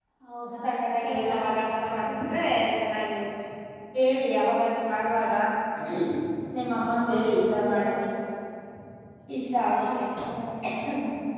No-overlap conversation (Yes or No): No